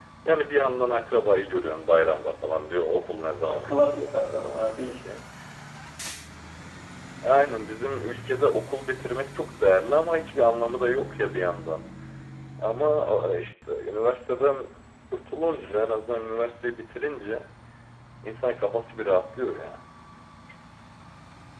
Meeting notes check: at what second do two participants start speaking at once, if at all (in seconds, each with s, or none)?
3.4 s